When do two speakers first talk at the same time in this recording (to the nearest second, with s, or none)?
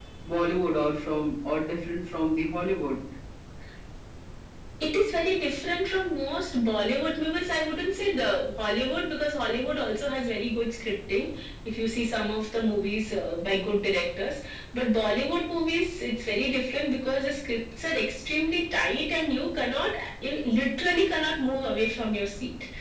none